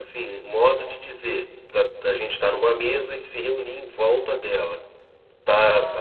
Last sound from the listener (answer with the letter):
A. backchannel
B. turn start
A